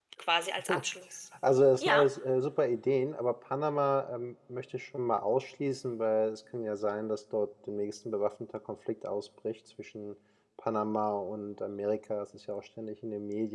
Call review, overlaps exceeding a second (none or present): none